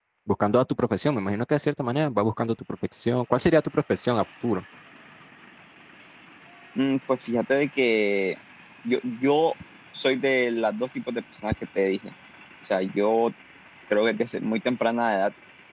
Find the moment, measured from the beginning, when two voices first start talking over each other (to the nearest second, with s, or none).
none